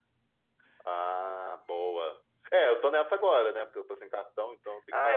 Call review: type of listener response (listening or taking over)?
taking over